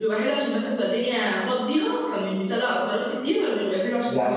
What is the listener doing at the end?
taking over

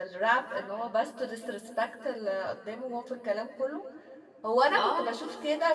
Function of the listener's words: listening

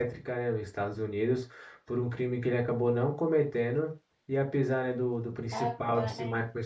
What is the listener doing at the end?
listening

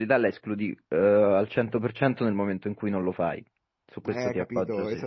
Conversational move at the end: taking over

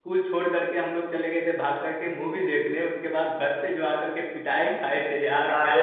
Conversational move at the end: taking over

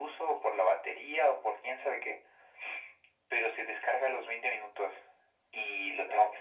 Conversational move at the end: listening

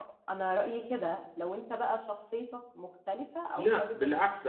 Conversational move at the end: taking over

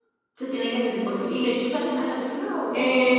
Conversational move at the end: taking over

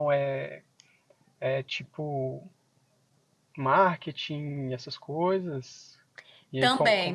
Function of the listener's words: taking over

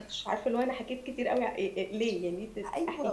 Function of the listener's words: taking over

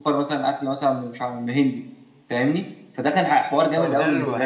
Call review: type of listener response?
taking over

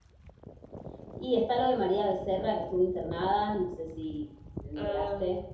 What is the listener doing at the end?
taking over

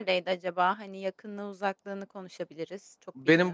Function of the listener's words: taking over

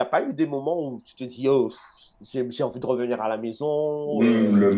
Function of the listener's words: taking over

